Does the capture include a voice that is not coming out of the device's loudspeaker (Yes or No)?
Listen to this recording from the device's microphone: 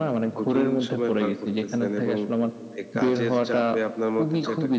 No